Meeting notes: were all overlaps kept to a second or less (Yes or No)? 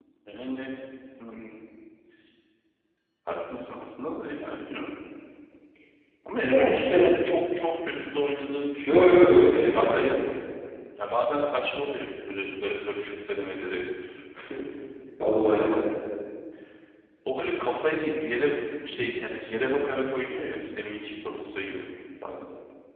No